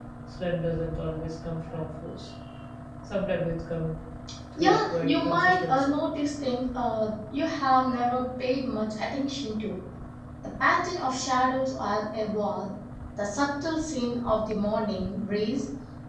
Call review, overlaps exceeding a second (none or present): present